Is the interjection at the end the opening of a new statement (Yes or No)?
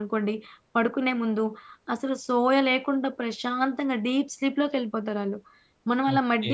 Yes